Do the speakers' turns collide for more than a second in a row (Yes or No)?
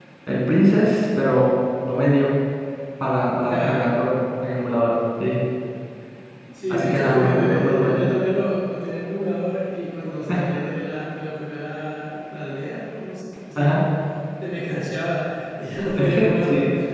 Yes